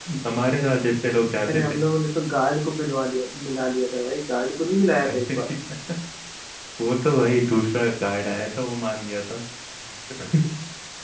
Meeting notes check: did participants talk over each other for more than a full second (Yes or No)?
No